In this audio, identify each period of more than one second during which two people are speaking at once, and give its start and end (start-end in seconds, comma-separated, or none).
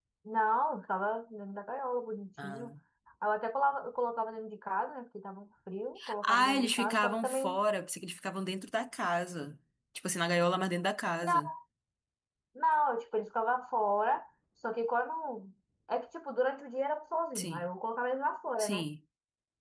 6.2-7.6